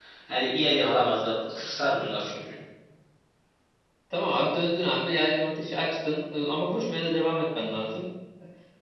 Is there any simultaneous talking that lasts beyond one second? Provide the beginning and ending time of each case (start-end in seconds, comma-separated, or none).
none